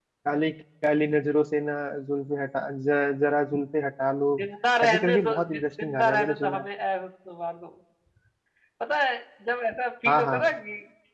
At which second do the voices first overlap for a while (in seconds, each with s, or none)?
4.8 s